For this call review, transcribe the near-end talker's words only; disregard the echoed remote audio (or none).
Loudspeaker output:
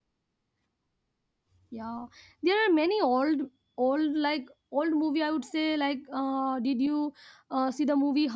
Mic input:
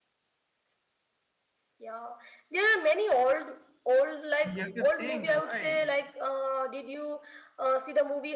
You have to think why